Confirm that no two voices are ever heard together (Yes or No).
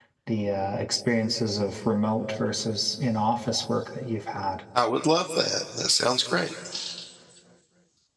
Yes